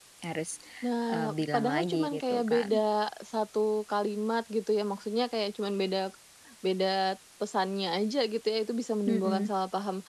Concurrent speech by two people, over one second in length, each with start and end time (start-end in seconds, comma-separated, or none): 1.1-2.7